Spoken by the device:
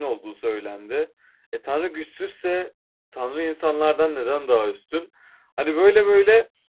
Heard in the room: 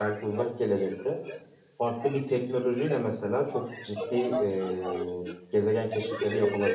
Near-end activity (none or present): present